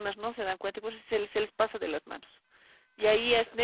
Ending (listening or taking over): listening